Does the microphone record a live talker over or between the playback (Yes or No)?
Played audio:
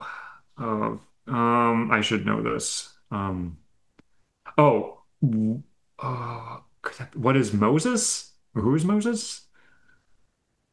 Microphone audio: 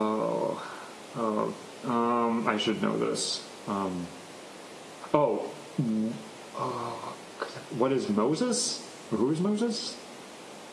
No